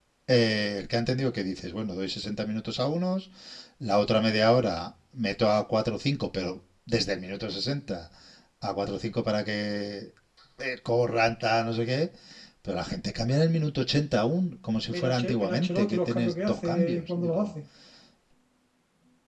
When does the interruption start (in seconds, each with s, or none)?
14.9 s